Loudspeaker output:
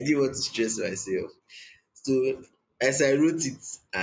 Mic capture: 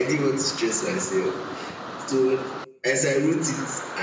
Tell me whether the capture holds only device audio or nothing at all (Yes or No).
Yes